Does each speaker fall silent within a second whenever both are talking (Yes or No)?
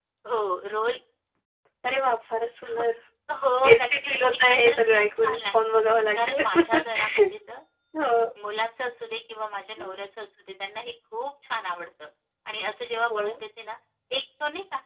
No